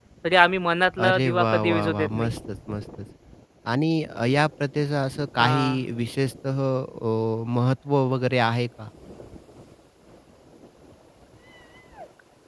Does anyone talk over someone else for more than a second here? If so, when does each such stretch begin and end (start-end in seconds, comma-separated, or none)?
1.0-2.3